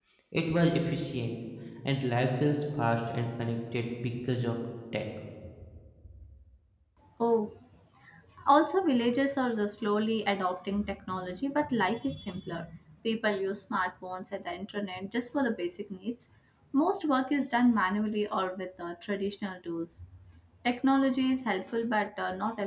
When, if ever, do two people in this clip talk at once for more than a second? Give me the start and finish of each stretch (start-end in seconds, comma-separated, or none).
none